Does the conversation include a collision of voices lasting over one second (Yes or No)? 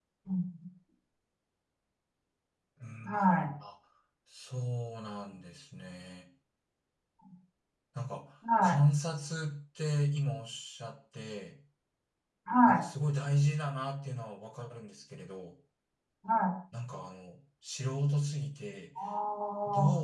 No